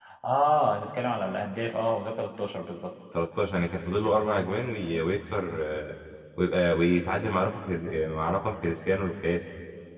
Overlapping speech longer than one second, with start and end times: none

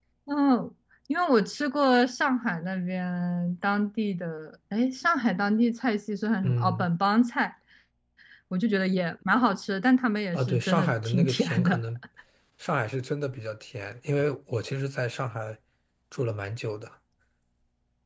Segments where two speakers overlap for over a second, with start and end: 10.3-11.8

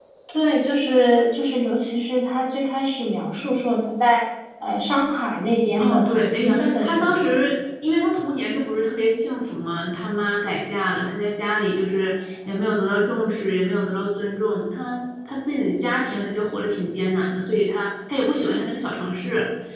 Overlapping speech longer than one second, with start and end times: 5.8-7.3

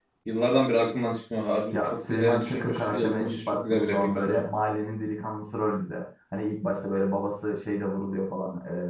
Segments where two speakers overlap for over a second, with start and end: 1.7-4.3

